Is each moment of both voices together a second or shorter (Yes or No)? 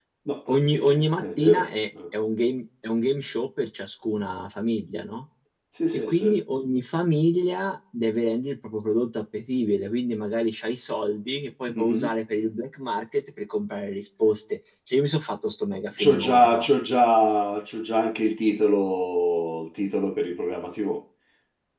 No